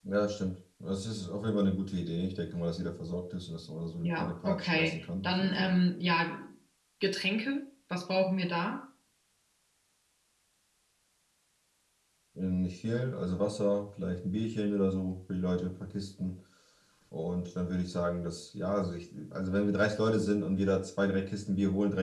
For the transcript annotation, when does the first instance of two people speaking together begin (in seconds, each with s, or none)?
4.0 s